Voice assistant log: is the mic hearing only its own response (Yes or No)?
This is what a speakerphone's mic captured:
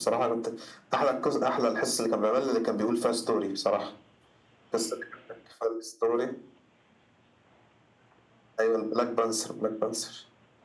Yes